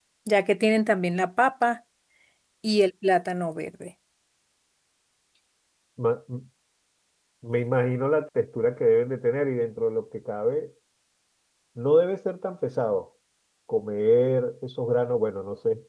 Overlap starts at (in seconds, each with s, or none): none